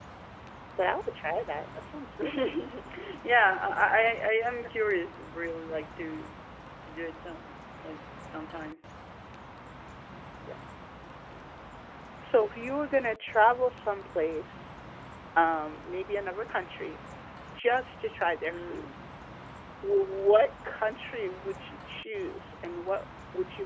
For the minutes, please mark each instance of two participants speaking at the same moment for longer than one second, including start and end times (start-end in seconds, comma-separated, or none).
none